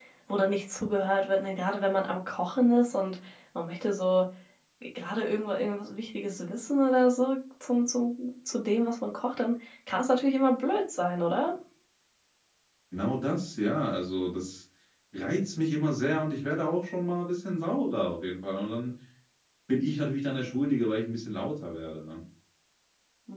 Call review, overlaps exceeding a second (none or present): none